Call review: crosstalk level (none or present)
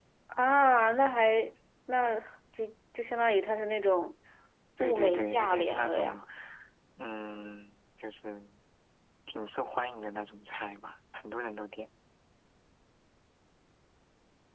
present